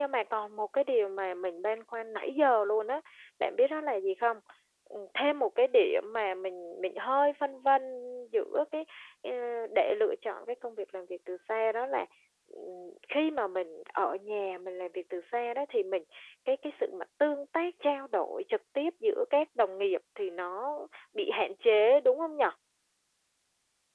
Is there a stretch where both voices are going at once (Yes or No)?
No